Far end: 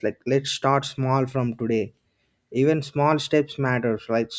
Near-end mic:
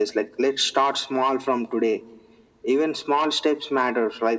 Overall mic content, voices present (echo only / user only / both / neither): echo only